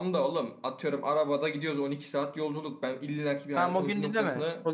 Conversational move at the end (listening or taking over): taking over